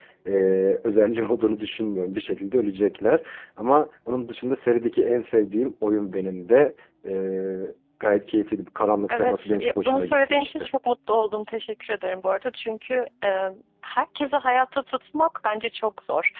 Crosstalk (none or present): present